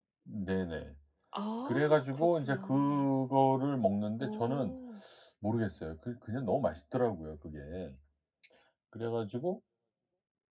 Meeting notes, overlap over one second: present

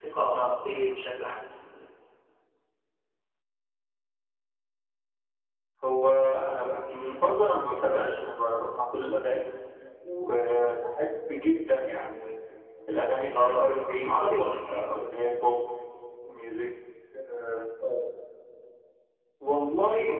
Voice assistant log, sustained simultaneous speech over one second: present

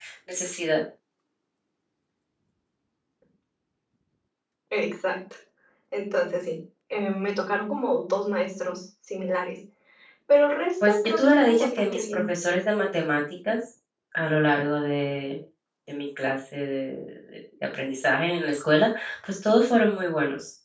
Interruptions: present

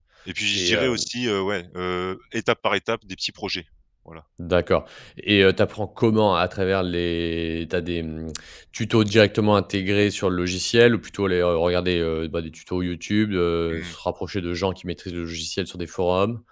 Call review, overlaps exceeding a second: none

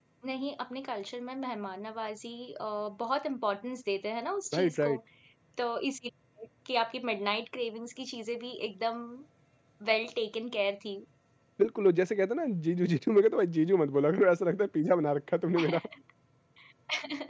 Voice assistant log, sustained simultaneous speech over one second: none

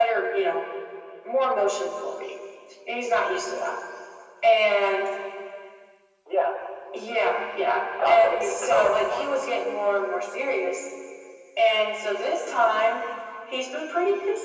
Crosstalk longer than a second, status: present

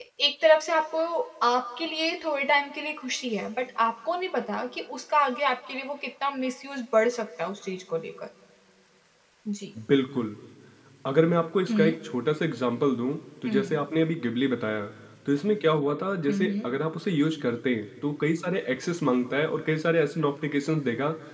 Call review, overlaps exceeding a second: none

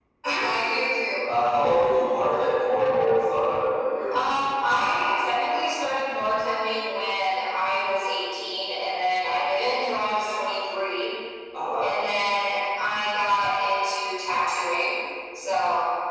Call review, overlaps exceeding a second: none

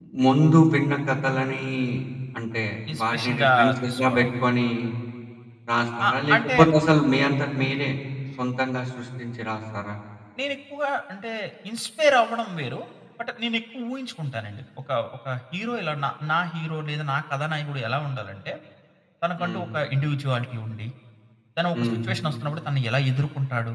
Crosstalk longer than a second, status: present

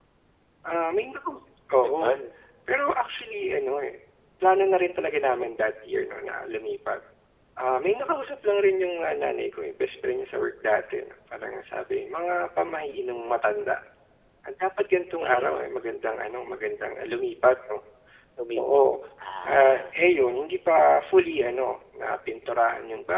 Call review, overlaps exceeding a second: none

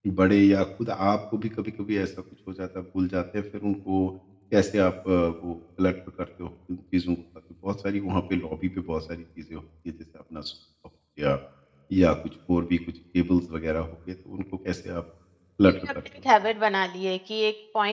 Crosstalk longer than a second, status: none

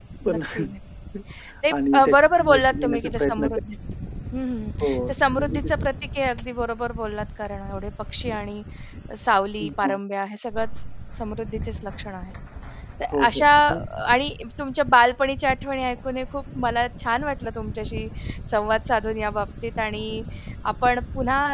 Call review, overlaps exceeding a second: present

